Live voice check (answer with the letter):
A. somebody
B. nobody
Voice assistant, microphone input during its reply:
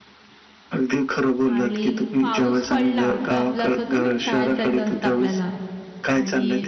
A